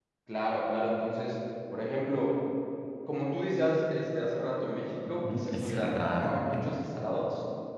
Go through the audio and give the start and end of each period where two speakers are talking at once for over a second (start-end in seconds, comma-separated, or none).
5.3-6.8